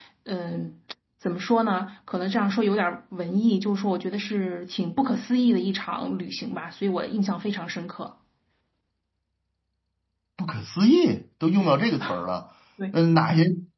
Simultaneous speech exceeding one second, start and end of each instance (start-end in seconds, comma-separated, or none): none